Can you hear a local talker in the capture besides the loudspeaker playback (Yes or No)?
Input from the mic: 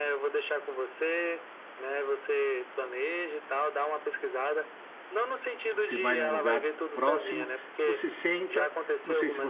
Yes